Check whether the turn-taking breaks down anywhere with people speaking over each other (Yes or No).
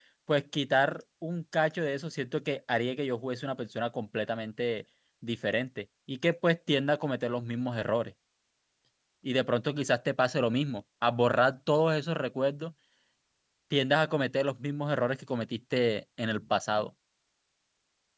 No